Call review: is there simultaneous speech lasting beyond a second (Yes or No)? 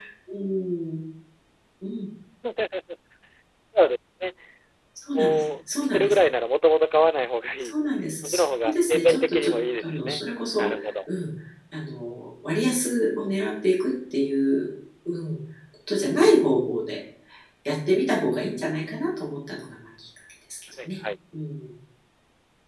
Yes